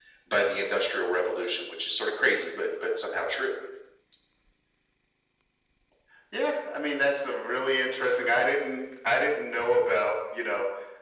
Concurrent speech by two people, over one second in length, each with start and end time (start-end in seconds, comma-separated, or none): none